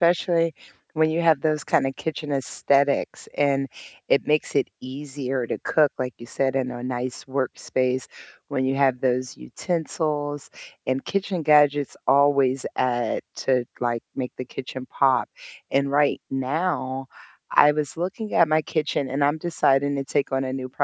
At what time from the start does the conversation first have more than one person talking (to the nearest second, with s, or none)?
none